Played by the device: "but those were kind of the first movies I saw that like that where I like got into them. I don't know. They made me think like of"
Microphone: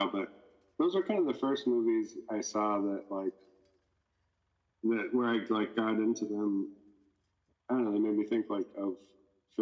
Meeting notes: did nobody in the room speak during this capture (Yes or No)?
Yes